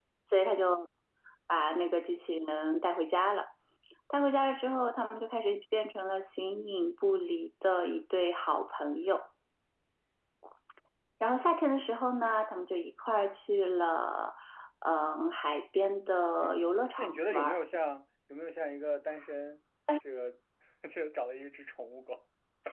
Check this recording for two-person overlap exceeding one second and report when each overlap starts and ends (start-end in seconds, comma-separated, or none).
16.4-17.6